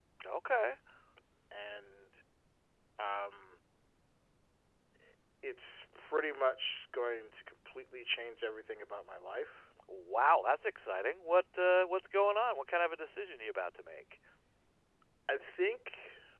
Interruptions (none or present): none